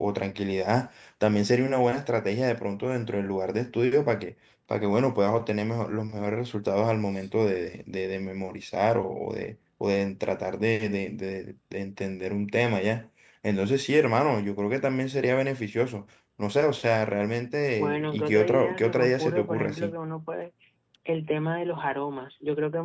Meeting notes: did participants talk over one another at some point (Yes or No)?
Yes